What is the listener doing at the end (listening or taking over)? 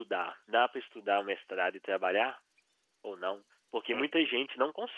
listening